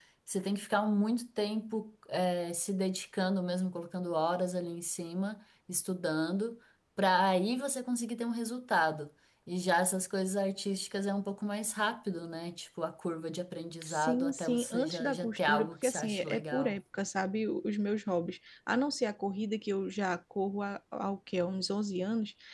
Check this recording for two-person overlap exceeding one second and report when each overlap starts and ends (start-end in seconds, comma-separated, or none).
13.9-16.8